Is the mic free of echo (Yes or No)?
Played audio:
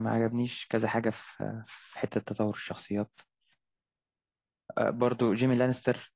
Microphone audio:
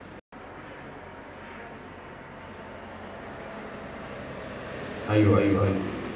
Yes